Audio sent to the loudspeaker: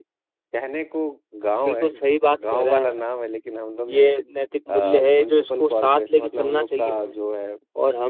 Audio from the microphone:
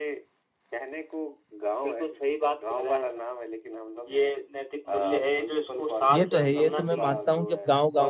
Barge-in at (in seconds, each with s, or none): 6.1 s